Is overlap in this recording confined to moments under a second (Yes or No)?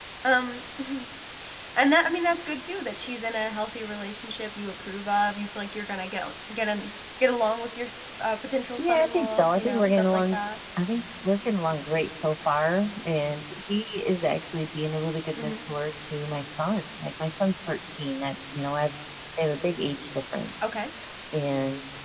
No